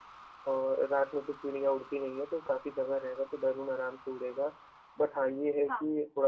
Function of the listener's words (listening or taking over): listening